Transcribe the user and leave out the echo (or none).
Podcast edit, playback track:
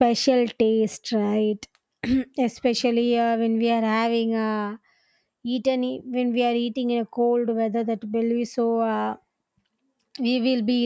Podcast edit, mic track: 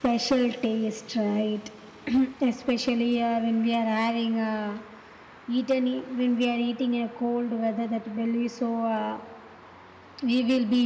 none